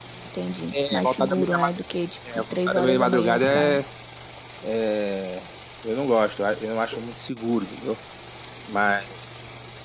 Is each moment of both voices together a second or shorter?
No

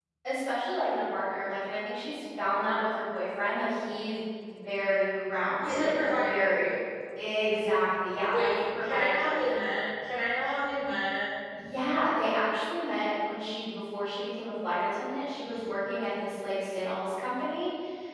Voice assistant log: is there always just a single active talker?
No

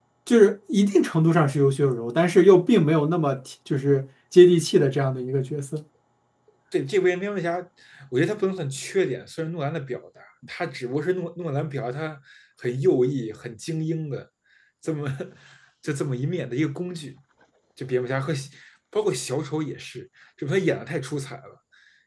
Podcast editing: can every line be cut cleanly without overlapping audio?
Yes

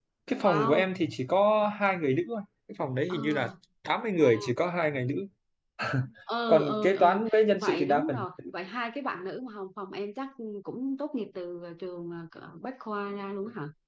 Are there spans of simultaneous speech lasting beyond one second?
Yes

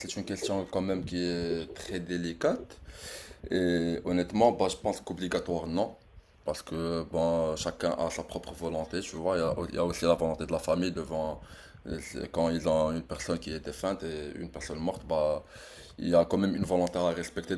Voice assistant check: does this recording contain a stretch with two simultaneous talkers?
No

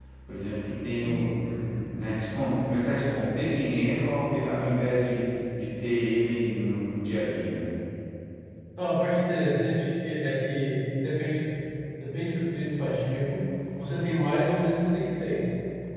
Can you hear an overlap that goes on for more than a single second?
No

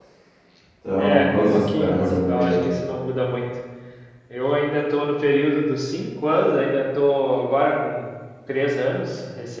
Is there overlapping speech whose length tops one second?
Yes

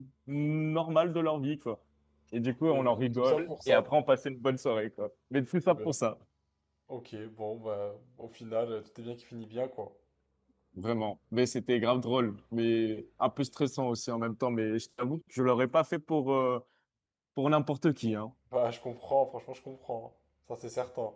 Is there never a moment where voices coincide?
No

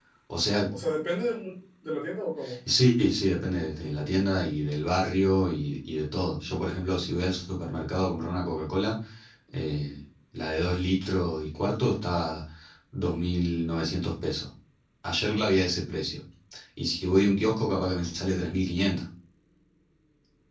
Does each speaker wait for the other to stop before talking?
Yes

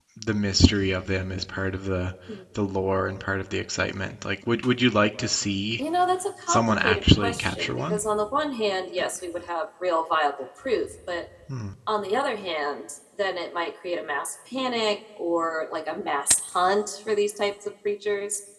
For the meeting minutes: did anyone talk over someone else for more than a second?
Yes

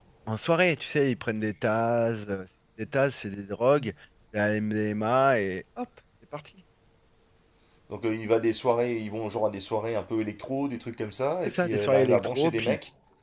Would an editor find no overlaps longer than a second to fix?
No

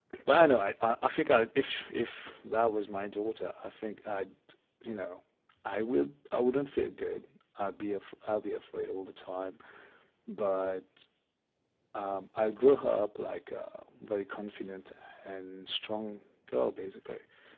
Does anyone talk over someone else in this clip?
No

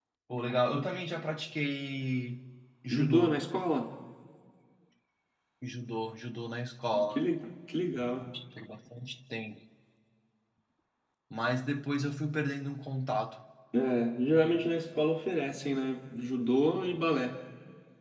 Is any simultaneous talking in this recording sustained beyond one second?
No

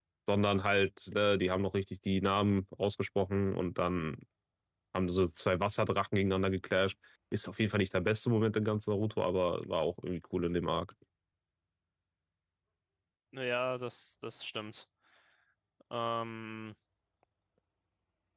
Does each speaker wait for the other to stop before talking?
Yes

